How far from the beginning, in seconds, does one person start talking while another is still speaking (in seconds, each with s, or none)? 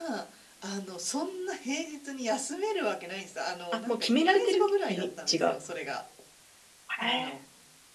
3.9 s